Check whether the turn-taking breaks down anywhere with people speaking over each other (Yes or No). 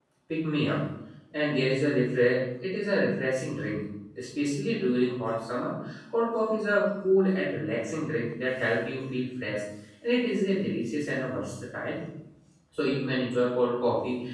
No